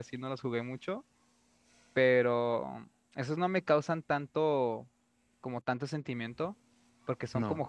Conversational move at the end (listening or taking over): listening